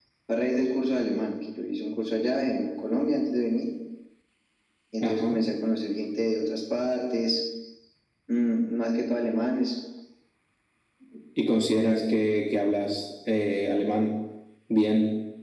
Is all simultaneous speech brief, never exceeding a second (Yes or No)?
Yes